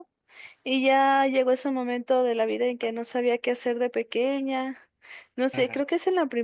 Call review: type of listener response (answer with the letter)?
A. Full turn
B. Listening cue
B